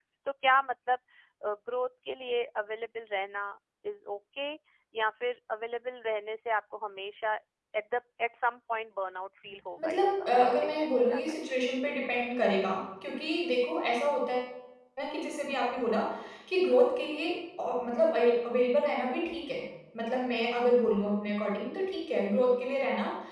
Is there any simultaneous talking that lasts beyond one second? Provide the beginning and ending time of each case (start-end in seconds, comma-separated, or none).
9.8-11.4